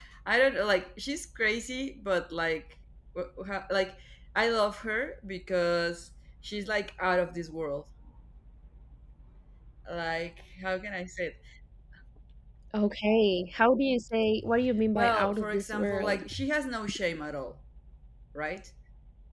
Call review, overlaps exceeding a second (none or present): present